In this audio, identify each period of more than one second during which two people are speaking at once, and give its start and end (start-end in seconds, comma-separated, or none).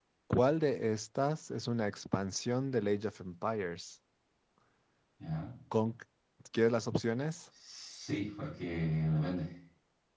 none